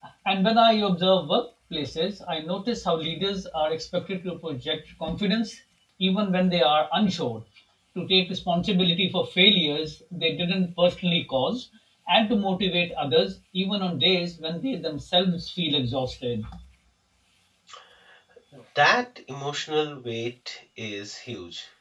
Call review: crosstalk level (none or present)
none